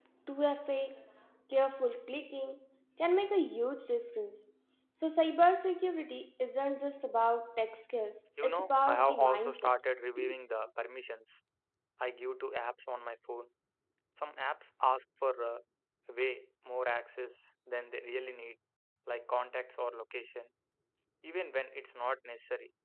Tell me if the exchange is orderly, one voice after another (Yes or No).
No